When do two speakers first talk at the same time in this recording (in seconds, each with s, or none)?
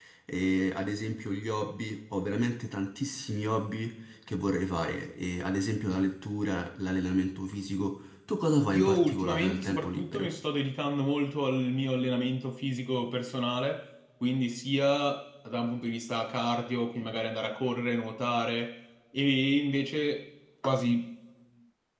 8.7 s